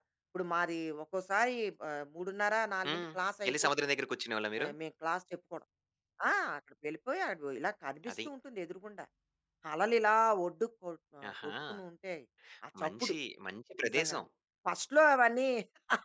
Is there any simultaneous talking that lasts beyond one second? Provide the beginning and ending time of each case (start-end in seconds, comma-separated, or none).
none